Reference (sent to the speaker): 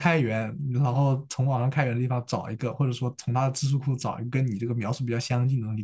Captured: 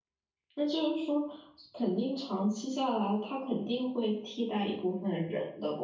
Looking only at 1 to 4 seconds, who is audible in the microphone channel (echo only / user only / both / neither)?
user only